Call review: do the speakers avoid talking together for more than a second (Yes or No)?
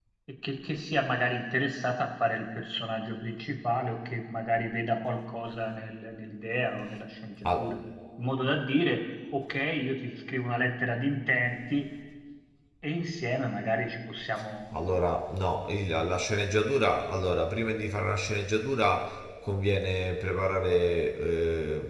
Yes